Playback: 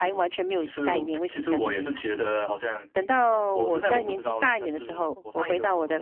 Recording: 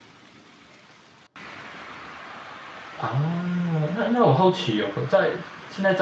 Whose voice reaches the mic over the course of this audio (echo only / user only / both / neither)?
user only